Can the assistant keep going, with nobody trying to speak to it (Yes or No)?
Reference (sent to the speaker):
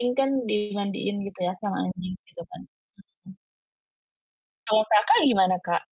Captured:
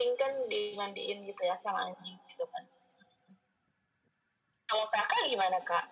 Yes